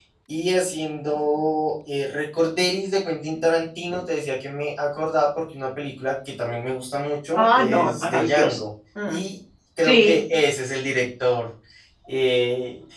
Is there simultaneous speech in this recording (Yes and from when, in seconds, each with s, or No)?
Yes, from 7.4 s